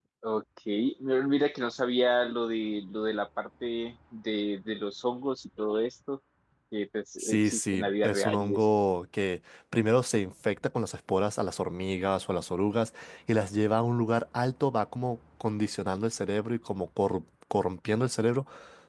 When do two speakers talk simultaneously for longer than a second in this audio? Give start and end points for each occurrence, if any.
7.2-8.6

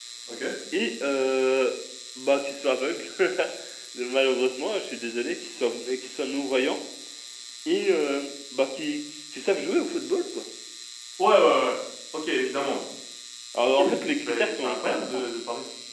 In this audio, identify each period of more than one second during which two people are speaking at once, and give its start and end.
13.6-15.2

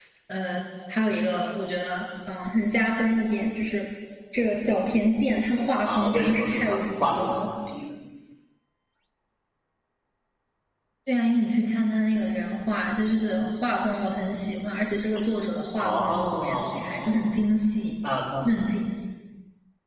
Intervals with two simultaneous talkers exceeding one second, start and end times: 5.8-7.4, 15.8-17.3

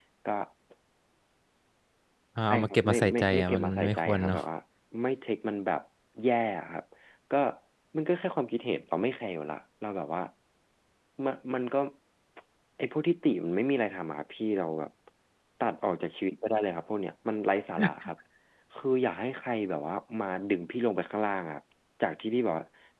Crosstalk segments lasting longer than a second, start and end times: 2.5-4.4

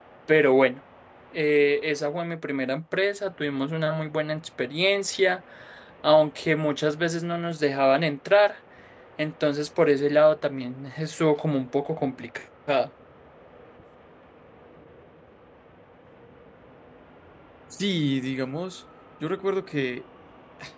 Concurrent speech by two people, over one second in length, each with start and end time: none

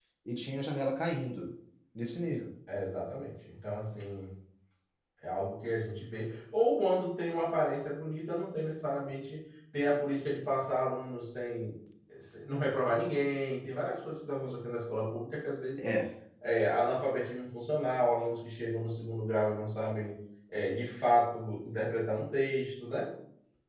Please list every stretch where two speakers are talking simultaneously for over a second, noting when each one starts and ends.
none

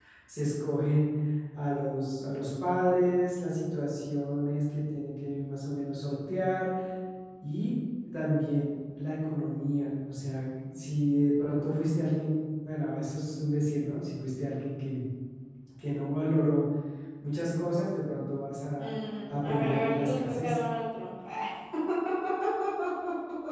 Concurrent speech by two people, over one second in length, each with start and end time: 19.3-20.6

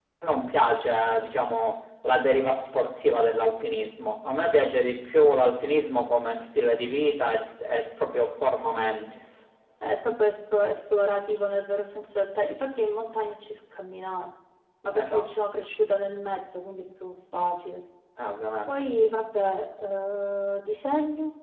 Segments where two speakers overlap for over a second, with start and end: none

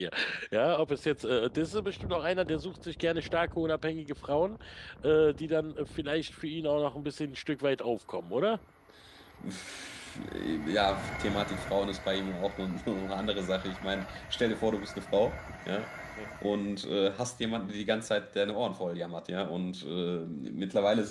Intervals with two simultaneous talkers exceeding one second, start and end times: none

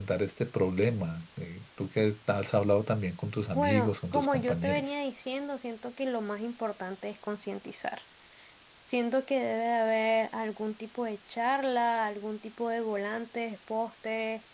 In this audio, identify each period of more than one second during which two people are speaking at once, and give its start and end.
3.5-4.9

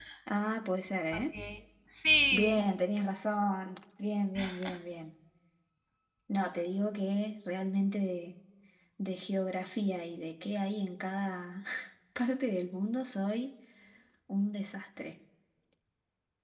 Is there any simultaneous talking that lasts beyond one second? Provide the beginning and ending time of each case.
none

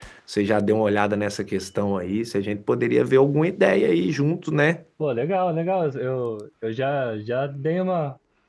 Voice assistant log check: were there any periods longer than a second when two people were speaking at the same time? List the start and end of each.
none

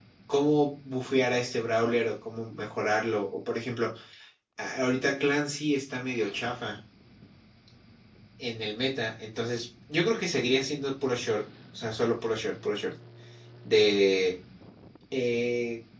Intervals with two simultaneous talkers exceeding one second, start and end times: none

